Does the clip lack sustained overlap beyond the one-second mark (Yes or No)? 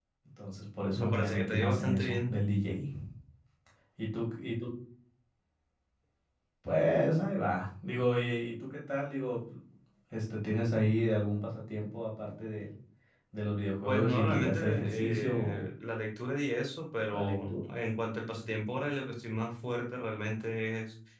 No